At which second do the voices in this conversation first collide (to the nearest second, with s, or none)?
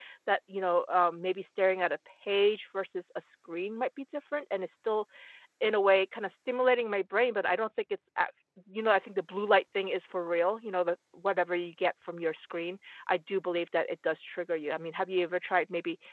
none